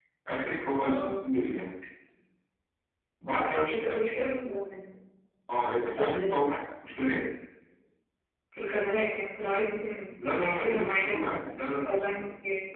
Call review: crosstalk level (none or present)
present